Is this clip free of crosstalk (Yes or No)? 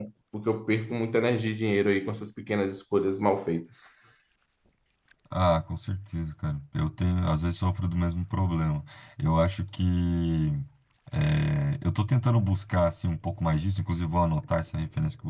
Yes